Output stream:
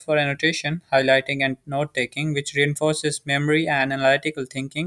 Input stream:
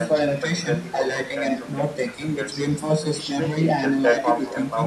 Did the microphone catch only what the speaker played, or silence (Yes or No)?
No